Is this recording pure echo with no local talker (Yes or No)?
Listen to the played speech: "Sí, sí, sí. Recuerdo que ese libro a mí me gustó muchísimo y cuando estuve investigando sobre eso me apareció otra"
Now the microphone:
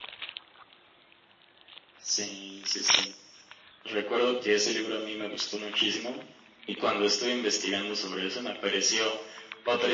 Yes